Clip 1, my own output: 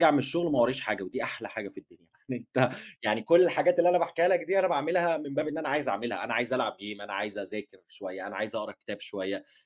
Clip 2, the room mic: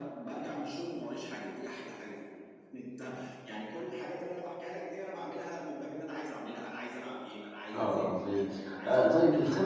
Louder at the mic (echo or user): user